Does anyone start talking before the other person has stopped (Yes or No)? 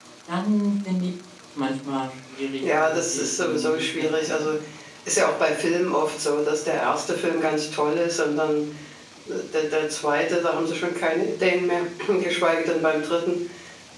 Yes